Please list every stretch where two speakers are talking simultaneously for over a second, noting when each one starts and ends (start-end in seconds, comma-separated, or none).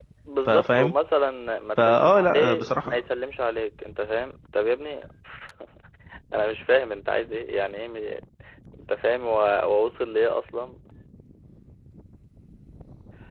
1.8-3.0